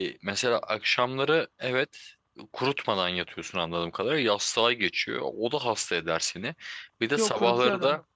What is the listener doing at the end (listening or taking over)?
listening